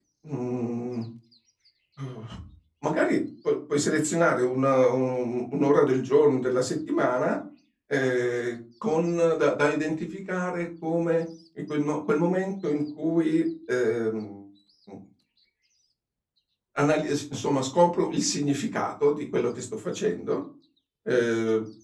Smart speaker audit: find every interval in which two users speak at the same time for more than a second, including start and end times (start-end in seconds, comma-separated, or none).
none